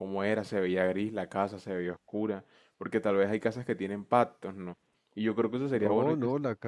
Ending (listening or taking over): taking over